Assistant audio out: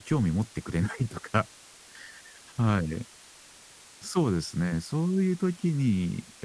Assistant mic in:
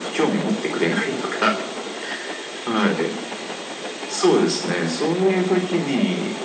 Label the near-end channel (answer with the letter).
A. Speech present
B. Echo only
B